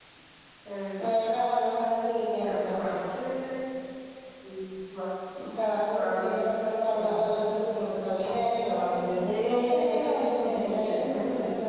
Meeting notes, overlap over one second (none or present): present